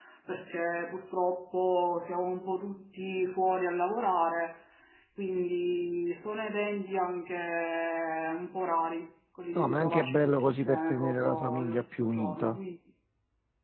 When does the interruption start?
10 s

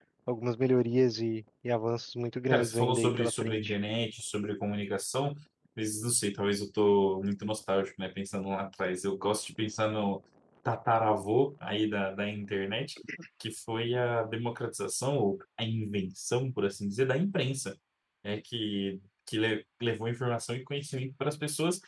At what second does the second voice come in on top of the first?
3 s

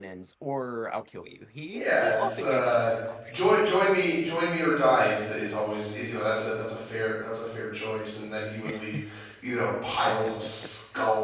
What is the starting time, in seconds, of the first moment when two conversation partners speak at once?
2 s

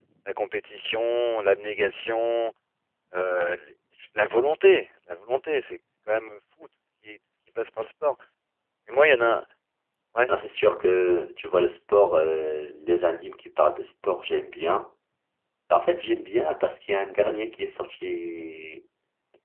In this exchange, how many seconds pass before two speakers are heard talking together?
none

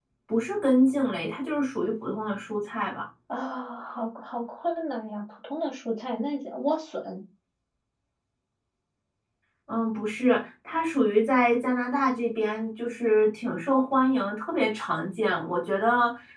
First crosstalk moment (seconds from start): none

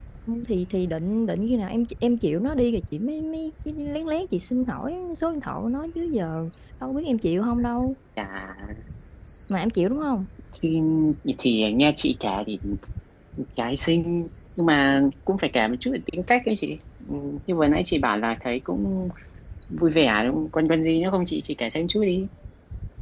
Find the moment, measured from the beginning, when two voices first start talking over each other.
none

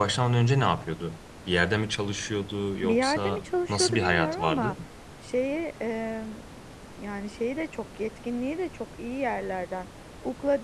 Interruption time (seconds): 3 s

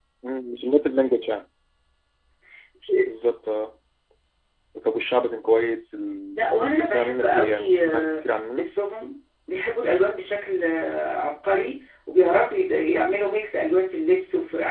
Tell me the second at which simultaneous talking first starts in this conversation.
6 s

